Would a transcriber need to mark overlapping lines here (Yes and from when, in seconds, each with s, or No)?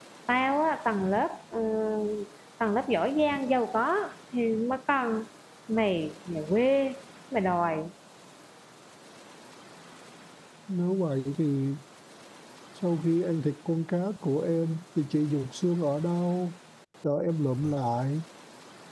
No